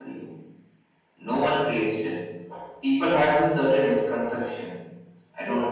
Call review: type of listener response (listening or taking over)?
listening